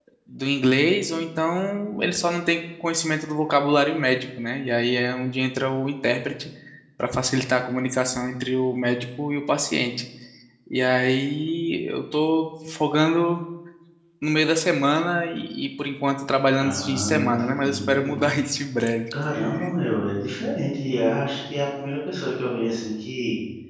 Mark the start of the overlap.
16.6 s

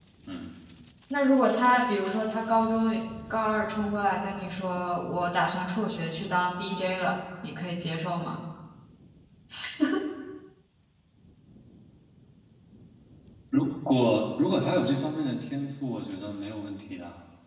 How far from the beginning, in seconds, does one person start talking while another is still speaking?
none

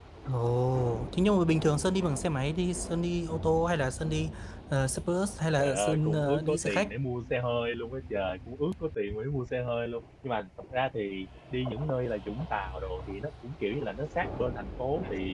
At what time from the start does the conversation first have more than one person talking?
5.6 s

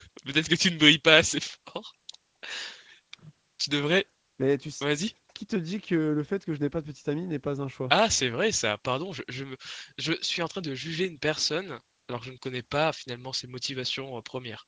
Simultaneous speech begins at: none

